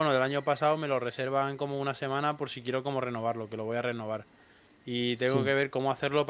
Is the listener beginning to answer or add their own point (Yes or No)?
No